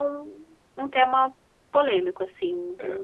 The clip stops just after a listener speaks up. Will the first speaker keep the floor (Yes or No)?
No